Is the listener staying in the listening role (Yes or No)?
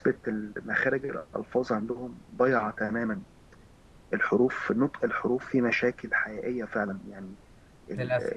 Yes